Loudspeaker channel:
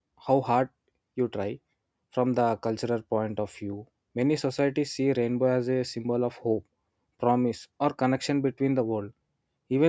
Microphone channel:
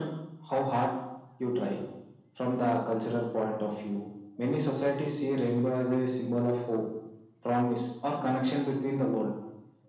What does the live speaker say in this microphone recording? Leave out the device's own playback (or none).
none